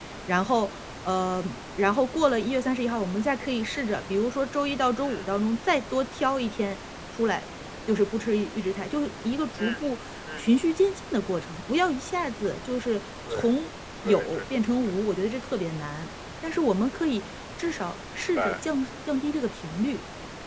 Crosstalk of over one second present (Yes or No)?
No